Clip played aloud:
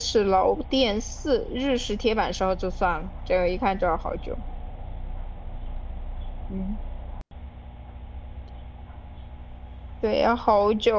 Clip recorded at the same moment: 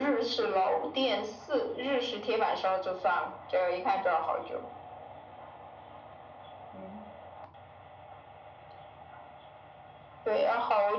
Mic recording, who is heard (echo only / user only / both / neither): echo only